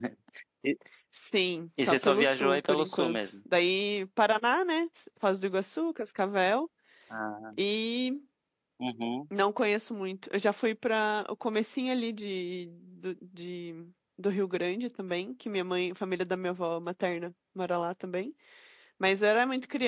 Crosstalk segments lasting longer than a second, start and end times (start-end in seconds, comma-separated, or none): 1.9-3.2